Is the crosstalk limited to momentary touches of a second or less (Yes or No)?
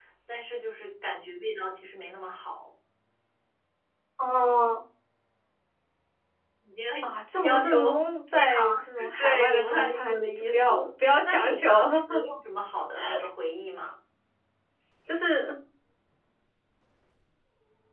No